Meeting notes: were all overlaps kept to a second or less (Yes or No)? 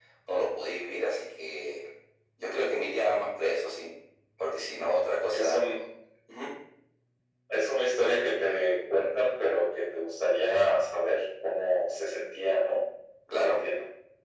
Yes